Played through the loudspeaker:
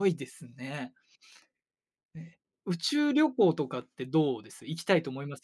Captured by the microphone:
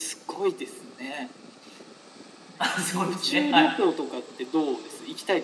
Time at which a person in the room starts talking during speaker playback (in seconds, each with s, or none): 2.5 s